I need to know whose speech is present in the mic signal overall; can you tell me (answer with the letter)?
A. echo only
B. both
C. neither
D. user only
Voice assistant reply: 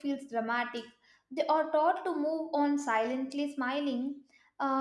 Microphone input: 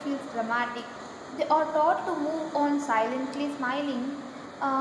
A